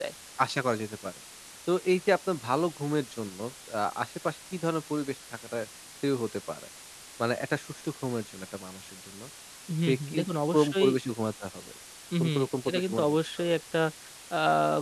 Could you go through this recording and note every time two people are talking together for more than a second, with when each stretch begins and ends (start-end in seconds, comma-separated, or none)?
12.2-13.5